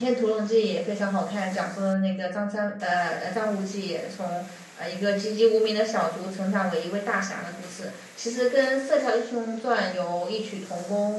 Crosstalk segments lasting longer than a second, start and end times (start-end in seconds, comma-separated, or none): none